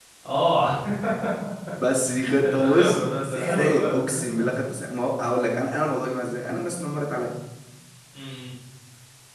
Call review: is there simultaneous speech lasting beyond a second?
Yes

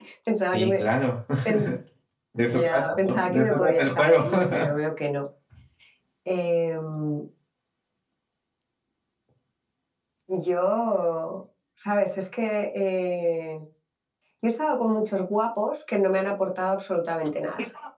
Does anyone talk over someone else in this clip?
Yes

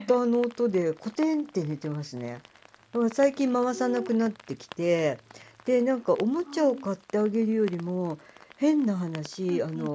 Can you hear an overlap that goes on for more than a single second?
No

